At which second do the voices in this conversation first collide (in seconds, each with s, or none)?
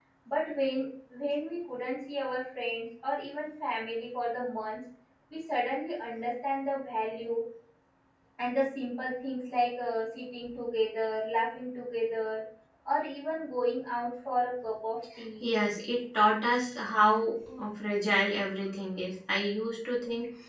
none